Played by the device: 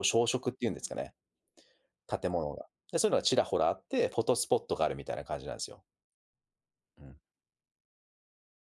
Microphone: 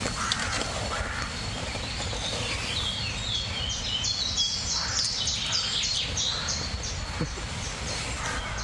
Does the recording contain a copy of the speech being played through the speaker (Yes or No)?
No